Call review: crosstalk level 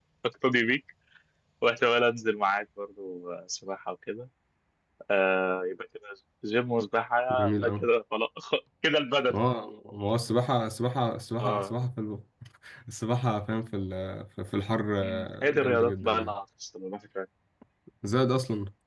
present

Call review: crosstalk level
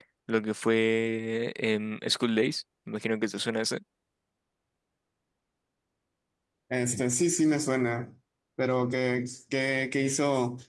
none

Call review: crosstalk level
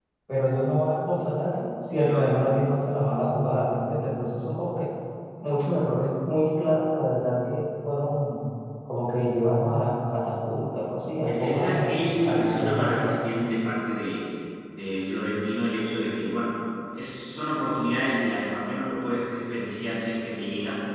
present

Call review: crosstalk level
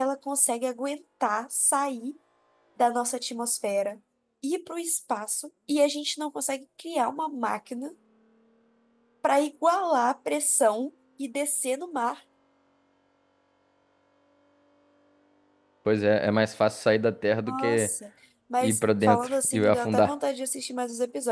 present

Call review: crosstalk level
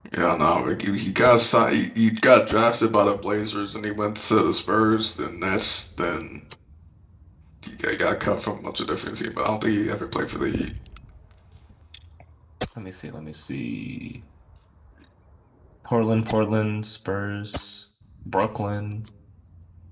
none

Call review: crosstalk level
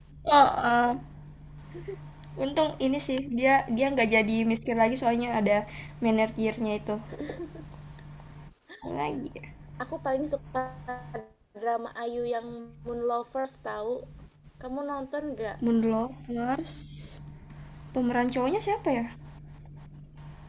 none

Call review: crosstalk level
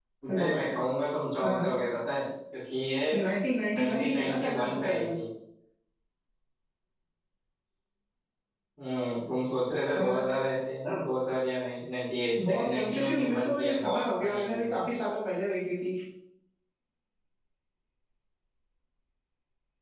present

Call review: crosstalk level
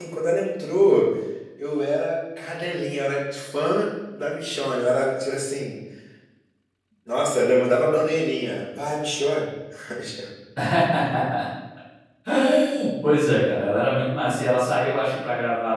none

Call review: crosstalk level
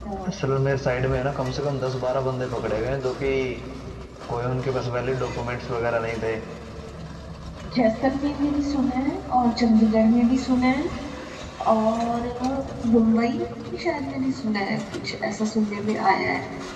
none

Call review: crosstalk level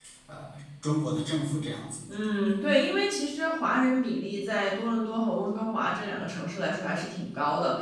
none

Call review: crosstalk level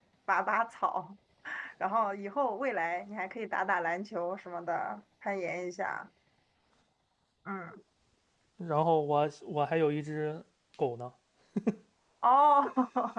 none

